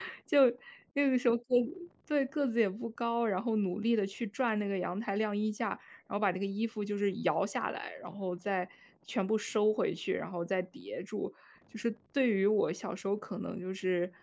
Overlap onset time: none

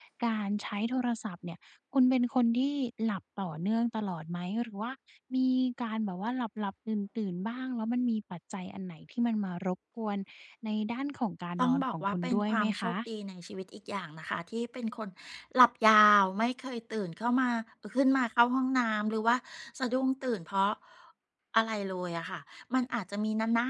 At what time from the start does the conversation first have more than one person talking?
12 s

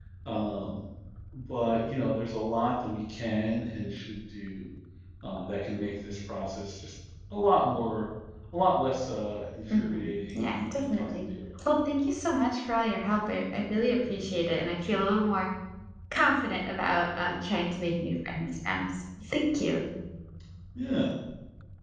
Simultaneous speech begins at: 10 s

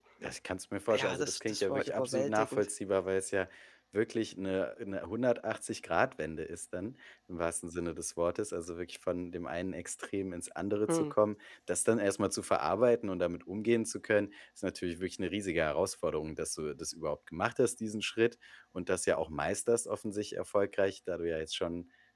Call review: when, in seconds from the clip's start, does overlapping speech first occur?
1 s

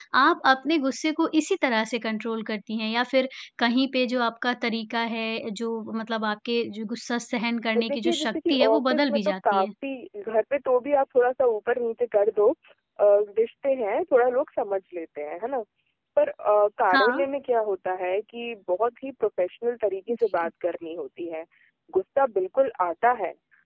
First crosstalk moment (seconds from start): 8 s

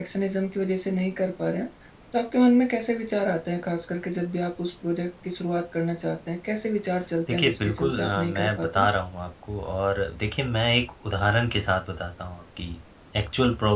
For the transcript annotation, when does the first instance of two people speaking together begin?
7 s

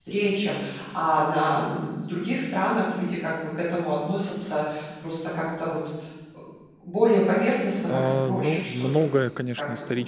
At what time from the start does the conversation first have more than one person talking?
8 s

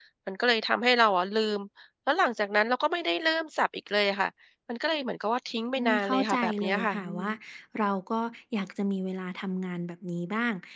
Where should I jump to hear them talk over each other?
6 s

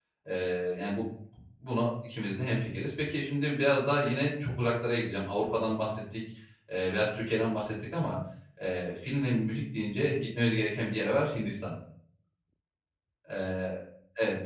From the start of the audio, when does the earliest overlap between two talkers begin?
none

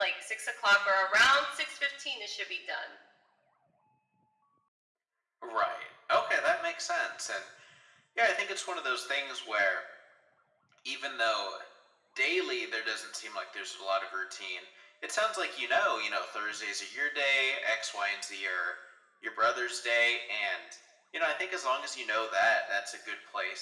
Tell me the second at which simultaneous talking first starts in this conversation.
none

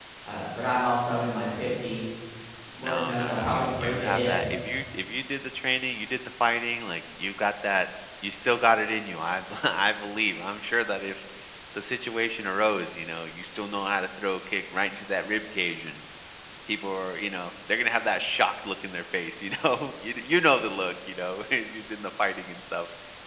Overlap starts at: 3 s

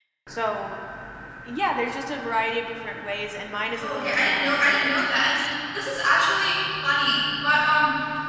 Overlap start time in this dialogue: 4 s

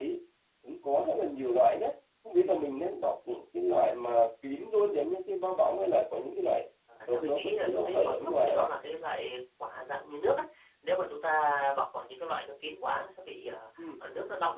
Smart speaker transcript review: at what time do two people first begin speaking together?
7 s

